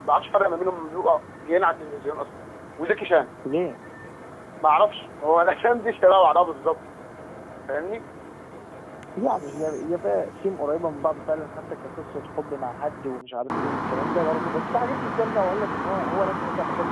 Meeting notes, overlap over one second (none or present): none